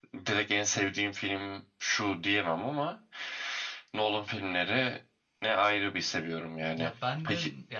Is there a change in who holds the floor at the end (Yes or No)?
Yes